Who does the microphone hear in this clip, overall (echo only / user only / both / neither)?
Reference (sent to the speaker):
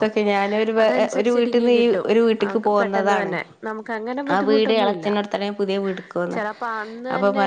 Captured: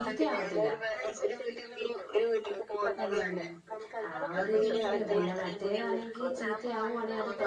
both